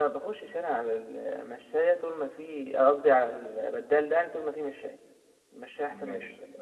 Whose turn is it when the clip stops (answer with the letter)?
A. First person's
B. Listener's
B